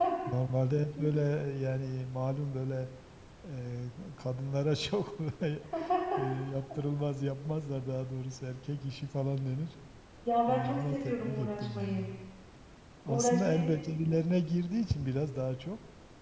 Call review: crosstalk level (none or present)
present